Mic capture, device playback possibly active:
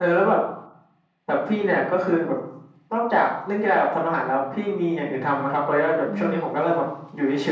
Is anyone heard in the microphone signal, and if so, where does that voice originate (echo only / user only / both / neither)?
both